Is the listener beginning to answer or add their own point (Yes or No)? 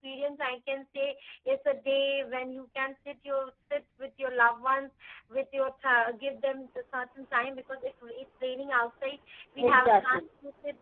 No